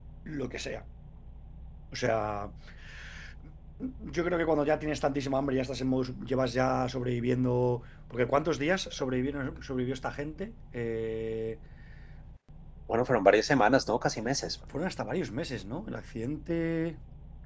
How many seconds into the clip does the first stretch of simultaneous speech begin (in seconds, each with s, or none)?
none